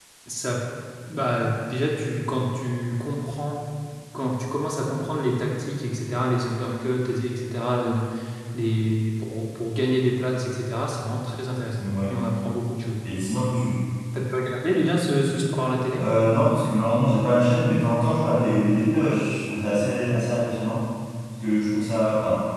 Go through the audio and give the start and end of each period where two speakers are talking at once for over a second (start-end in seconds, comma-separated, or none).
none